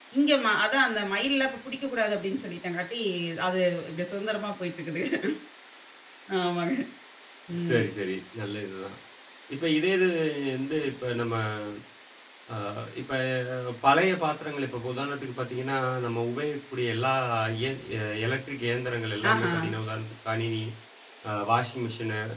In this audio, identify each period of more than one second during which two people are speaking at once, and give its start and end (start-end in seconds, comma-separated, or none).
none